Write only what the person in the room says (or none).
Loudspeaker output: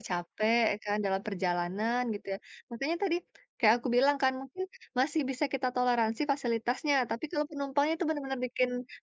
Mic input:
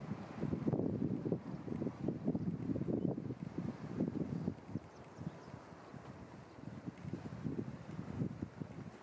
none